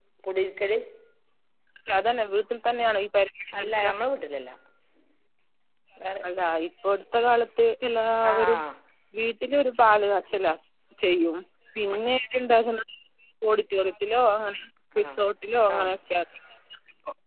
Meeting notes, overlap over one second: none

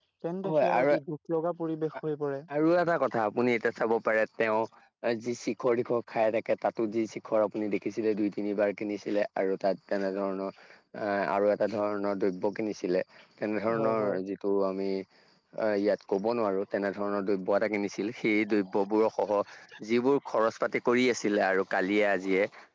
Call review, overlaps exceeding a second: none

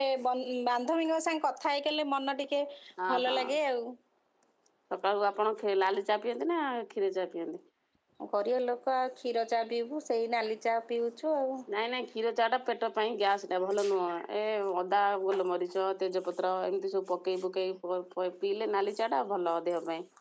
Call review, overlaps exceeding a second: none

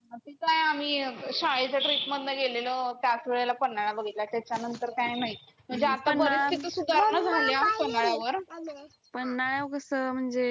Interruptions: present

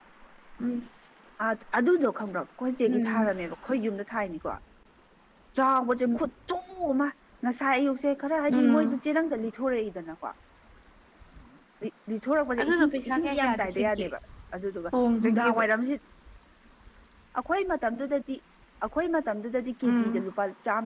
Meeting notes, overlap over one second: present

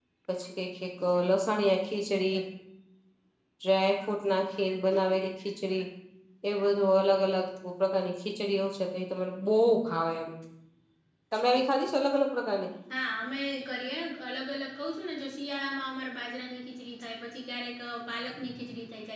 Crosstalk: none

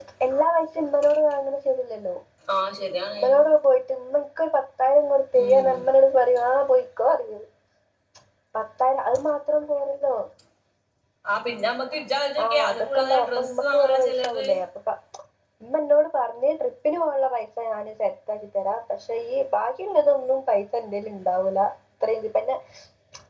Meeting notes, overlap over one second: present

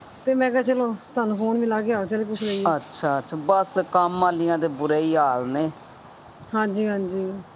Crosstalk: none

